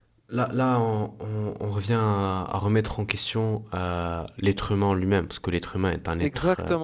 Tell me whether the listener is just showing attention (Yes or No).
No